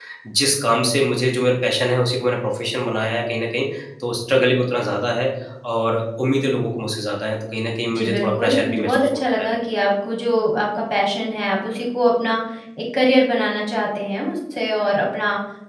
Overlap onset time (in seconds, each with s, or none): 7.9 s